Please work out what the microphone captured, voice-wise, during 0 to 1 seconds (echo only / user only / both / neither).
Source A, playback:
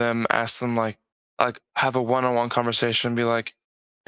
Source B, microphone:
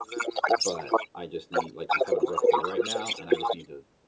both